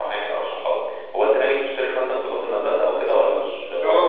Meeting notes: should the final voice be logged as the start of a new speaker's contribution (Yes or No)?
Yes